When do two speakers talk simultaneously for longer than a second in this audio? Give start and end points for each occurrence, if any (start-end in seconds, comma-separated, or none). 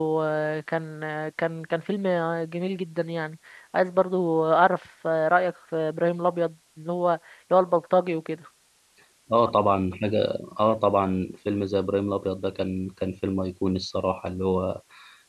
none